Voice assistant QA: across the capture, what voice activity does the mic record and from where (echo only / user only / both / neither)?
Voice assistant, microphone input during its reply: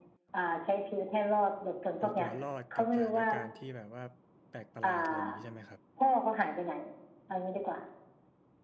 both